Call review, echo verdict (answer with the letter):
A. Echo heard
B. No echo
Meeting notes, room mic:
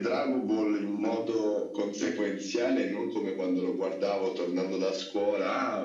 A